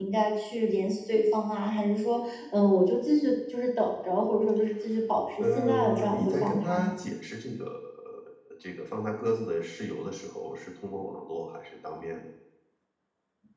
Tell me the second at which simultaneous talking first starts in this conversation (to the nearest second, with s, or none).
5 s